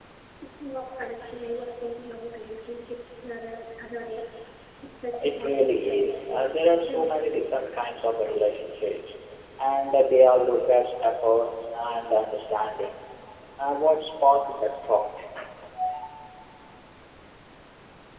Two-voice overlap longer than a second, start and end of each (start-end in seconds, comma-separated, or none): 5.2-7.3